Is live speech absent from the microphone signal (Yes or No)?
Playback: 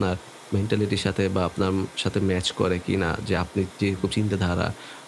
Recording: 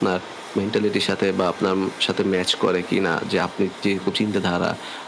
Yes